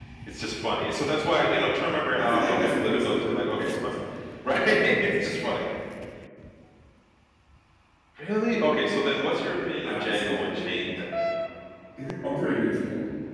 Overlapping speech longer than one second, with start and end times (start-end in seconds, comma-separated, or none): 2.2-4.0, 9.8-11.1